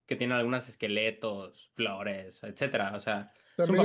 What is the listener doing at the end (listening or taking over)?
taking over